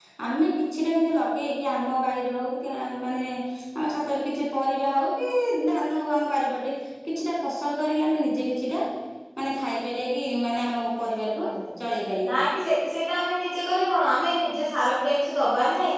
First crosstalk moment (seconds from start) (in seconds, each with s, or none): none